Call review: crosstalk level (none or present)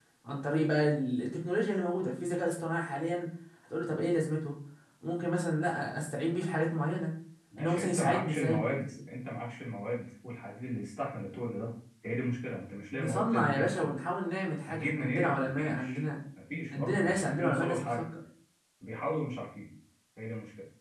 present